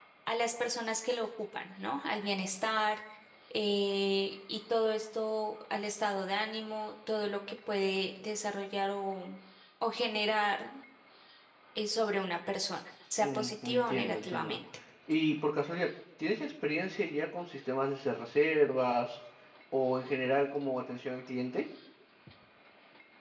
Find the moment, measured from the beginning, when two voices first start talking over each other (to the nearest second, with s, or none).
13 s